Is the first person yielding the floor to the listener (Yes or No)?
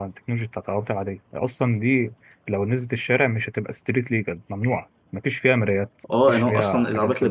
Yes